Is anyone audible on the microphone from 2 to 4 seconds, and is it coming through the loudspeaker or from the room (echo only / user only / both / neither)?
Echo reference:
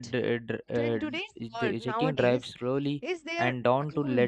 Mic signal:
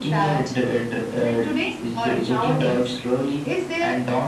echo only